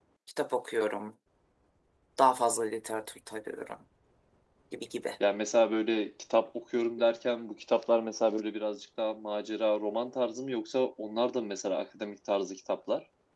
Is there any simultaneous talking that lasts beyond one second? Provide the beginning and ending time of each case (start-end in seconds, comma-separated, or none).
none